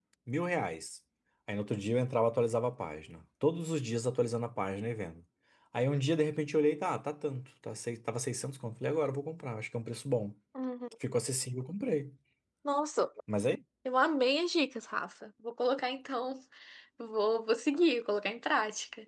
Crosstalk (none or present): none